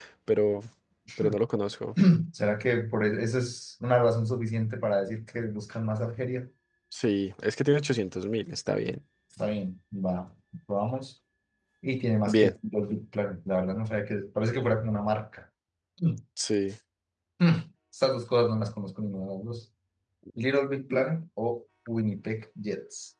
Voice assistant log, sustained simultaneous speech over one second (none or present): none